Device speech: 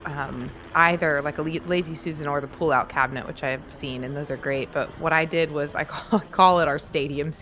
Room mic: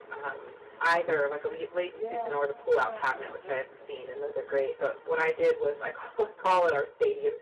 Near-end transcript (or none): Yeah. Yeah, uh-huh.